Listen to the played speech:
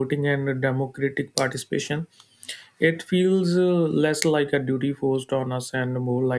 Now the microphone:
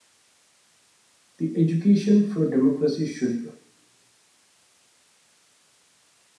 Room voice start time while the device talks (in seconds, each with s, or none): 1.4 s